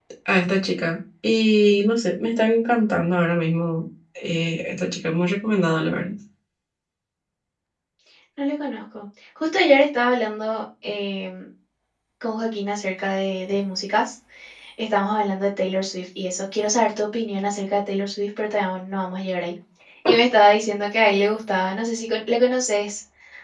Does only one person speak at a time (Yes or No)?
Yes